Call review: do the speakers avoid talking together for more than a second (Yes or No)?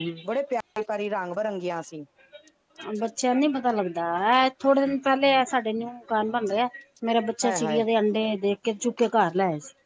Yes